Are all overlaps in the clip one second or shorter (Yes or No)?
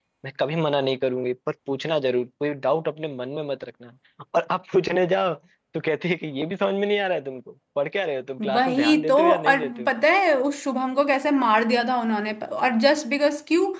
No